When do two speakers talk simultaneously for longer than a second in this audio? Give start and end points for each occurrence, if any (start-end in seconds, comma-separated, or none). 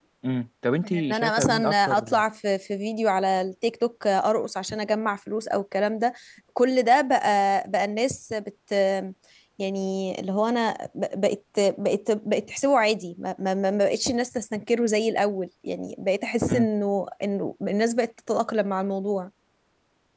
0.8-2.2